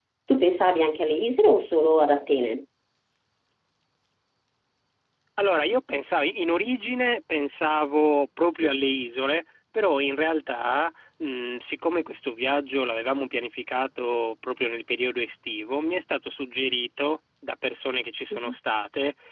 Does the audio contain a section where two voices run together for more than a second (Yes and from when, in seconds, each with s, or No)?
No